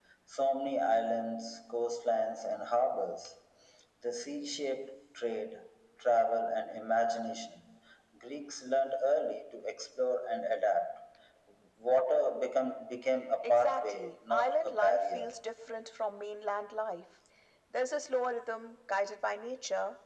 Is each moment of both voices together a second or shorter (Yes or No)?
No